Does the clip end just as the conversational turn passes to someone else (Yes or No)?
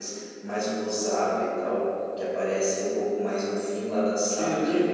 Yes